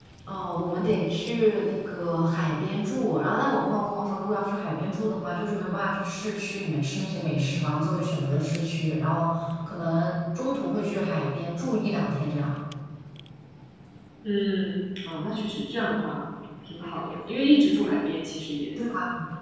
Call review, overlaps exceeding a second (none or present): none